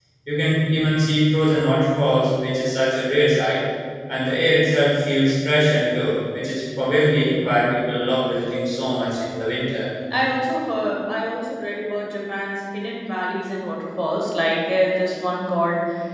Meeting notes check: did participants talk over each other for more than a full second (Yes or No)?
No